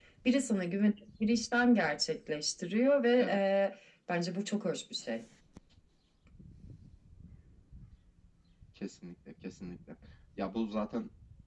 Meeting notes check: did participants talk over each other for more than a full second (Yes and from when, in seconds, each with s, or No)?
No